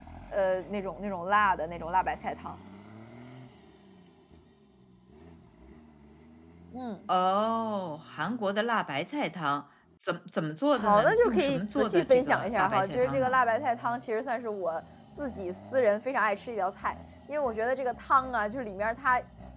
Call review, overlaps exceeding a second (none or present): present